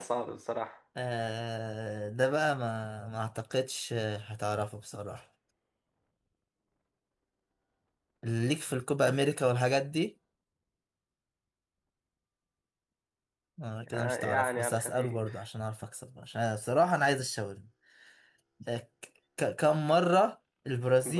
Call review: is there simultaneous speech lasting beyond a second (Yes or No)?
Yes